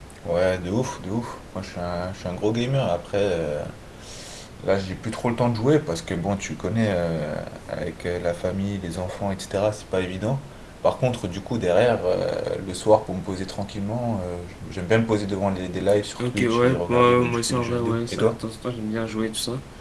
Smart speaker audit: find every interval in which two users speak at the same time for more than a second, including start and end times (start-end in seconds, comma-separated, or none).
16.2-18.4